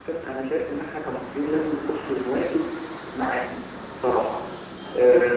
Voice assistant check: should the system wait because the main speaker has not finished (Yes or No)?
No